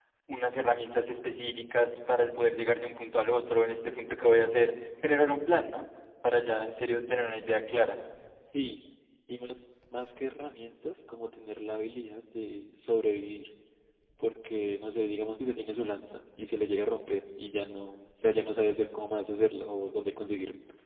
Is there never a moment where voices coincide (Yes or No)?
Yes